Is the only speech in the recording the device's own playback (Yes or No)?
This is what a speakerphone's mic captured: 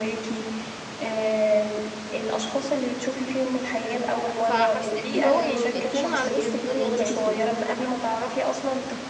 No